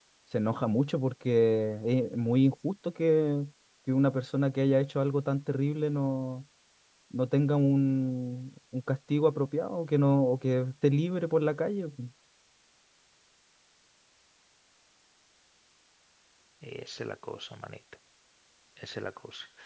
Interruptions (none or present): none